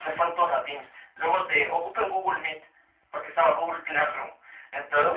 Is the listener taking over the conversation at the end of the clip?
Yes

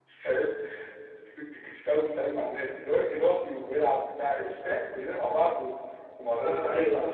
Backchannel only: Yes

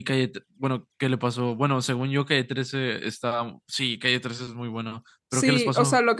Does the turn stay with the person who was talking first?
No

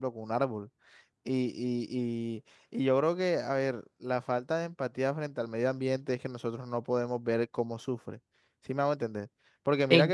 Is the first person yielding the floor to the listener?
No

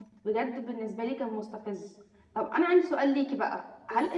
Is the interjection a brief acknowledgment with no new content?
Yes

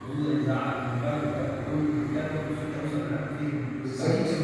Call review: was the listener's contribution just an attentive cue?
No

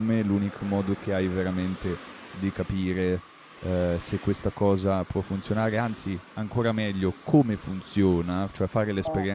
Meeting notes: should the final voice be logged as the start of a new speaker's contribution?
No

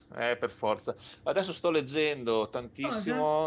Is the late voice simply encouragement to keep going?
Yes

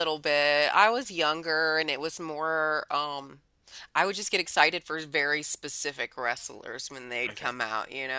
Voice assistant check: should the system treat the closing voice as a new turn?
No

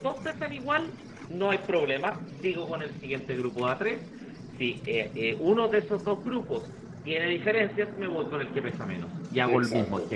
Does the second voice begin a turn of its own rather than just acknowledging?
Yes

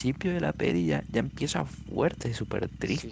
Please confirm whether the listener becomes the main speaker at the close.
Yes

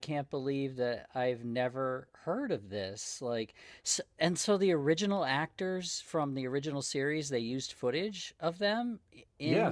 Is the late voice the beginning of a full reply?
Yes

